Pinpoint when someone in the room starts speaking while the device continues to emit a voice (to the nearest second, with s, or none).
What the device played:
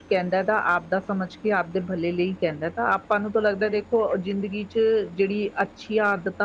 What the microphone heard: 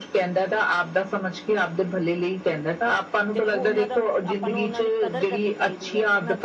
3 s